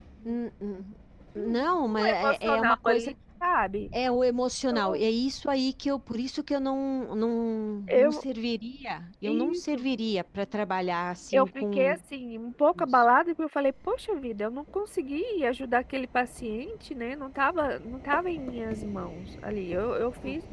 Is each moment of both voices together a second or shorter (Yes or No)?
No